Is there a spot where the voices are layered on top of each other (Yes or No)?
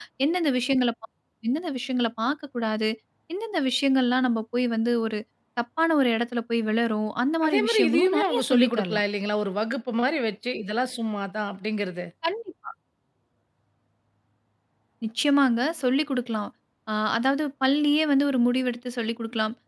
Yes